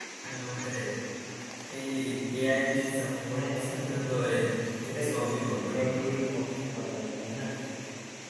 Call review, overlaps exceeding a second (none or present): present